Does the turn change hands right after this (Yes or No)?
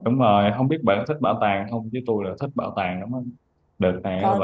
No